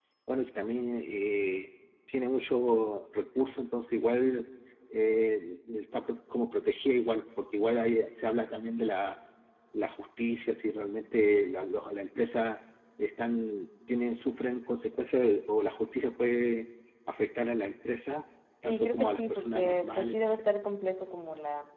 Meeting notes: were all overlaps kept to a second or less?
No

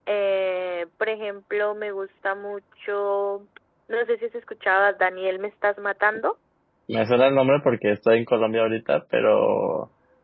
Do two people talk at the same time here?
No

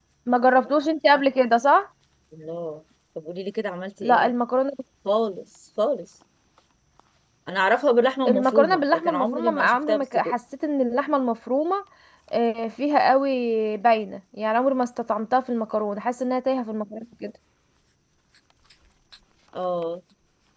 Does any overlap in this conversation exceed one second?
Yes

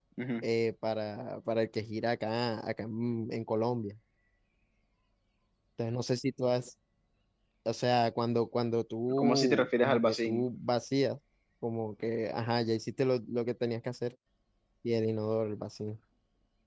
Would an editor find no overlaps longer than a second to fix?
No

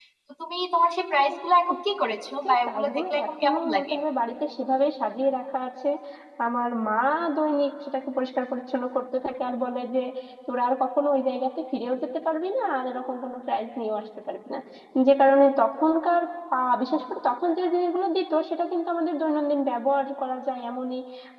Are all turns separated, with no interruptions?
No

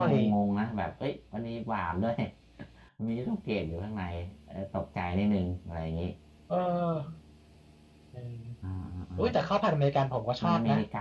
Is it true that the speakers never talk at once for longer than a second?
Yes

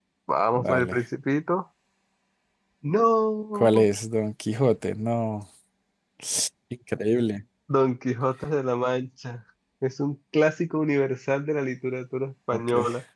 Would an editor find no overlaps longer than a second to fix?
Yes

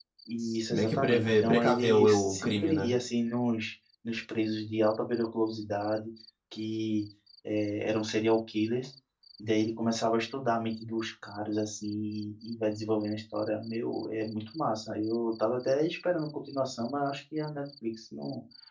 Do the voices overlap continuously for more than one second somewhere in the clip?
Yes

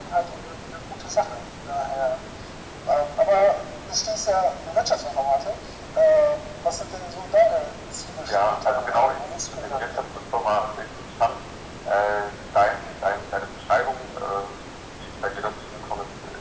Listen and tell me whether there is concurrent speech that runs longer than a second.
Yes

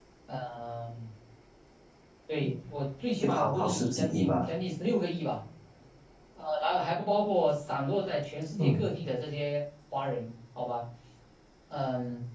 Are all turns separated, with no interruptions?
No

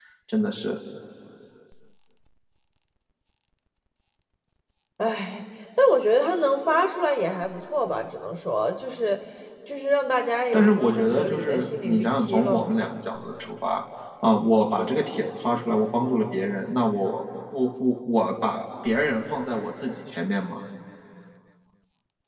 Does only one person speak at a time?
No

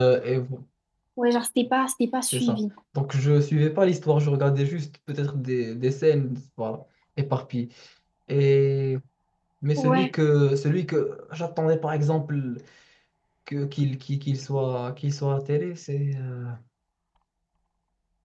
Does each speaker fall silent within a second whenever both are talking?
Yes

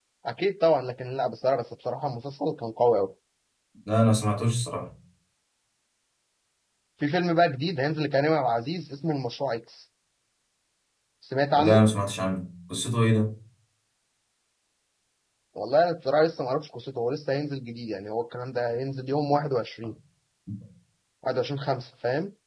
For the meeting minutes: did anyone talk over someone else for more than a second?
No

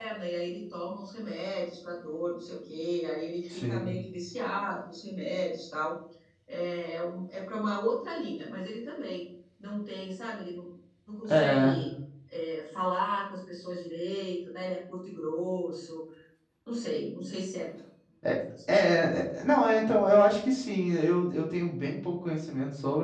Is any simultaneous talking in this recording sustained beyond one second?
No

